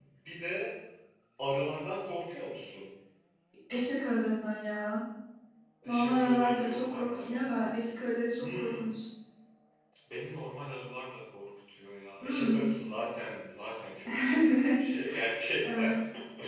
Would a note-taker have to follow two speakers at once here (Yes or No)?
Yes